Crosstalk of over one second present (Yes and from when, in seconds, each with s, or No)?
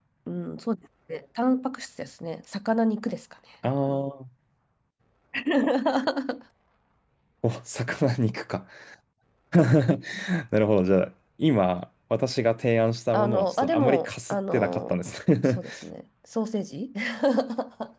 Yes, from 13.1 s